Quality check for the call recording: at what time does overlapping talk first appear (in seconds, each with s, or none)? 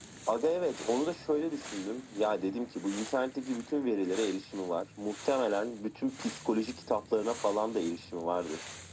none